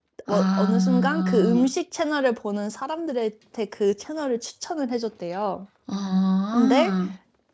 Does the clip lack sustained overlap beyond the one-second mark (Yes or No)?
No